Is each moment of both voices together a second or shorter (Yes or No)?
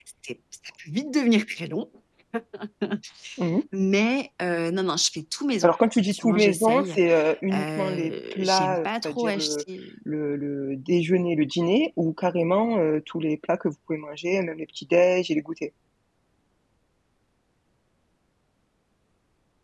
No